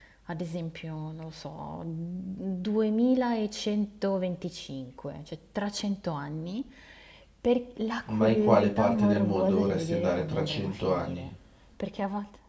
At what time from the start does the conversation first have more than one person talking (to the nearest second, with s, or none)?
8 s